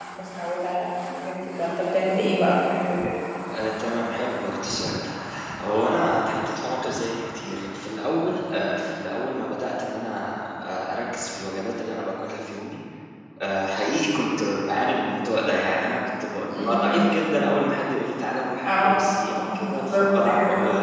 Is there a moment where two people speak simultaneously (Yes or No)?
Yes